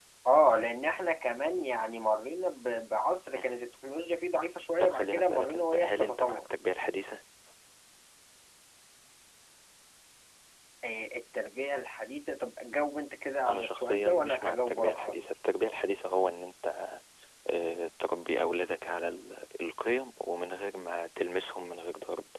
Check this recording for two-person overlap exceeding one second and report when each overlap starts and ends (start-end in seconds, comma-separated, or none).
4.8-6.4, 13.5-15.3